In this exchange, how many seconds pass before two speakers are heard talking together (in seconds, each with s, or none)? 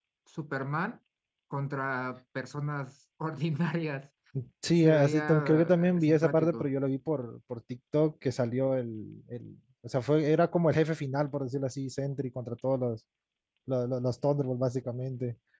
4.8 s